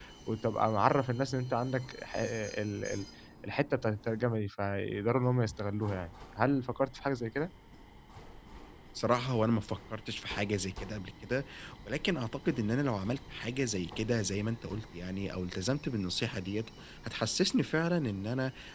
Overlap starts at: none

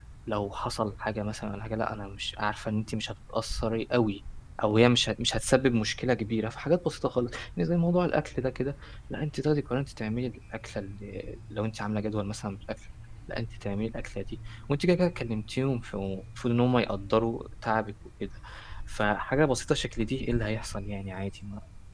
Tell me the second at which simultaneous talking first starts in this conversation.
none

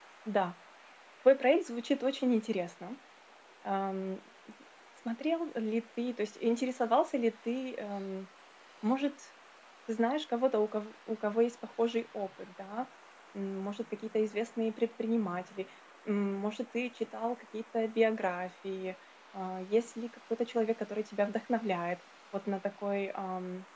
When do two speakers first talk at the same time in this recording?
none

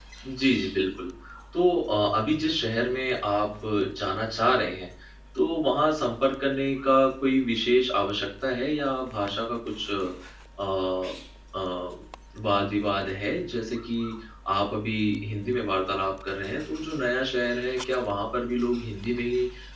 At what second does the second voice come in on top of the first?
none

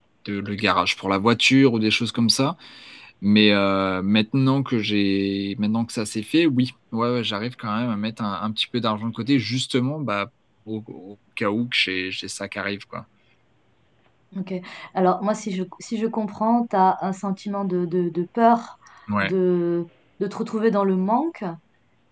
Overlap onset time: none

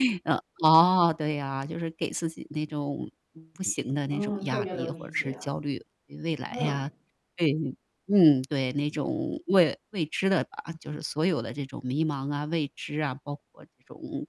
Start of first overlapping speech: 4.1 s

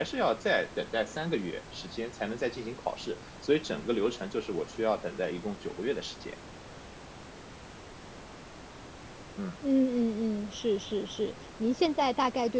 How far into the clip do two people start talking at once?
none

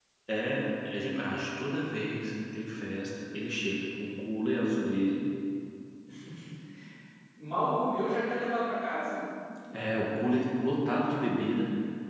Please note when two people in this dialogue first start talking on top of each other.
none

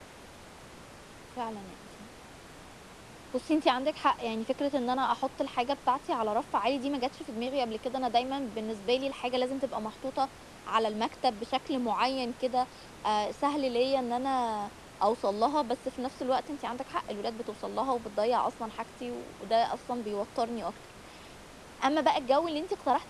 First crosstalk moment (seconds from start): none

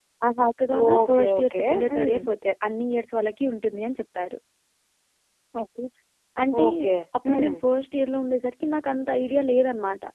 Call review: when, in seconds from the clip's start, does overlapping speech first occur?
0.8 s

